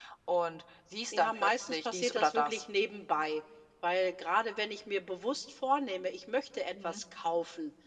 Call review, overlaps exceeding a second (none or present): present